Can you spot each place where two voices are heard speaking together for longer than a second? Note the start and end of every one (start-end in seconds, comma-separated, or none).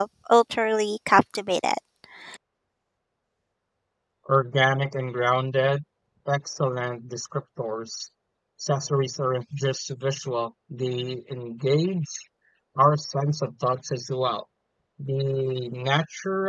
none